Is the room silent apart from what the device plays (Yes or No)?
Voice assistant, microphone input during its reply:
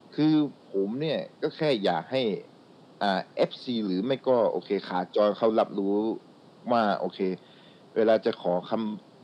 Yes